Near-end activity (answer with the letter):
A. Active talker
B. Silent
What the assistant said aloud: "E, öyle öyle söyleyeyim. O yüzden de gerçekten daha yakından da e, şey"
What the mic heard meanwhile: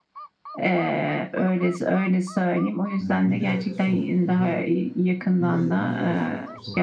A